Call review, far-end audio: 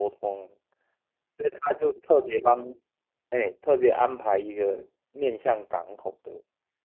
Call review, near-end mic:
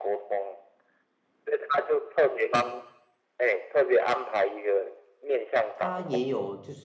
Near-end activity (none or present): present